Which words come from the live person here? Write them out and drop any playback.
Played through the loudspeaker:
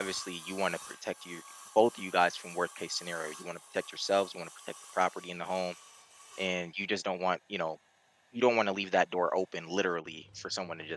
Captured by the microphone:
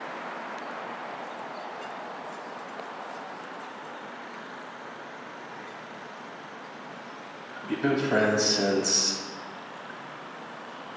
We've been friends since

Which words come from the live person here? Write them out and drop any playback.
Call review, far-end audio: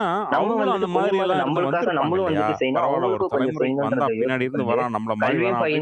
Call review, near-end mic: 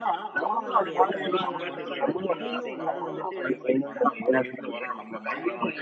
அப்ப அது எனக்கு அந்த விஷயங்கள்லாம் தெரியாது. திடீர்னு ஒரு நாள் வந்துட்டு,

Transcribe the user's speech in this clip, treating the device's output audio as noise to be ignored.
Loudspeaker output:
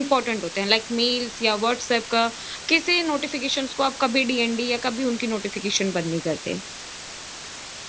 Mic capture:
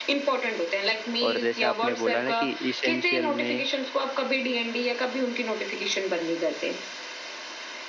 और जैसे आपने बोला ना कि इसेंशियल में

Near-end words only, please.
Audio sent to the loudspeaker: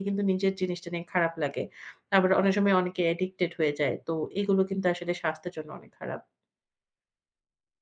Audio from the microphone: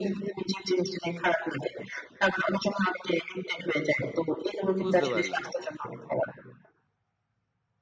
বুঝতে পারলাম।

